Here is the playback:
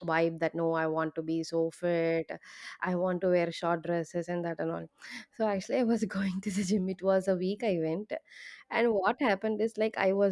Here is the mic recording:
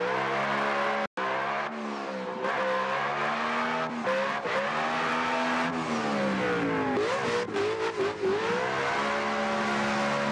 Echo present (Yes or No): No